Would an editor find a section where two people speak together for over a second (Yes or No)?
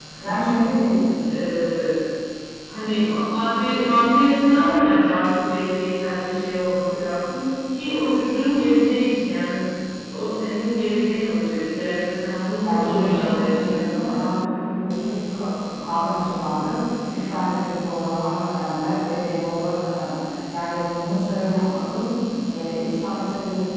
Yes